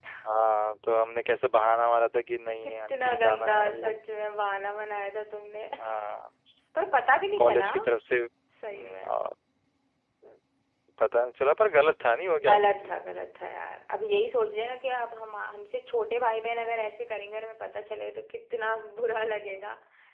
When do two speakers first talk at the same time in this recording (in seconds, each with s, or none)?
2.6 s